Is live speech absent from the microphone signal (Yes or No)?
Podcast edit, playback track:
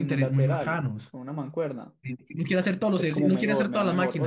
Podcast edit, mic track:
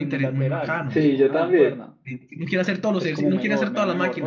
No